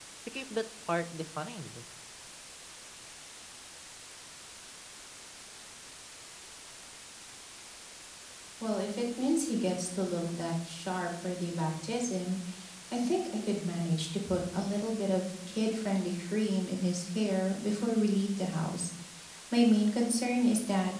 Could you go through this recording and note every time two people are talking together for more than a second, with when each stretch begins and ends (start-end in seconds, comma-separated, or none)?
none